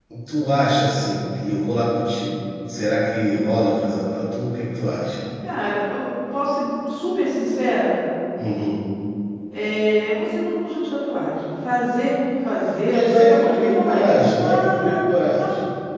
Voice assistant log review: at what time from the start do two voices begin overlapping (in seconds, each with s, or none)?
12.9 s